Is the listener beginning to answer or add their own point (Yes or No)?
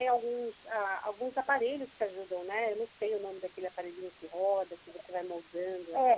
Yes